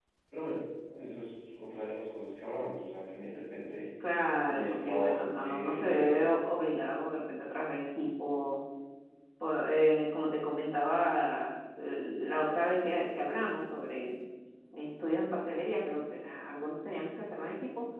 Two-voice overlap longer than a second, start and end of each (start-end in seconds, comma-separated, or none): 4.5-6.3